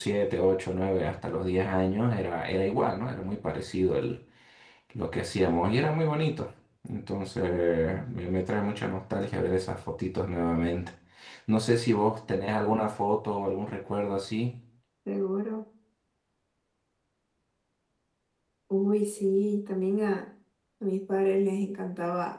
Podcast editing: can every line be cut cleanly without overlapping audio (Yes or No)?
Yes